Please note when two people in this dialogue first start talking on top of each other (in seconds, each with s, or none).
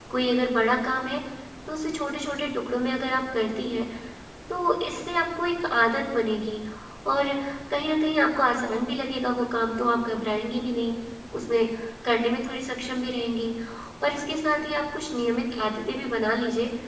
none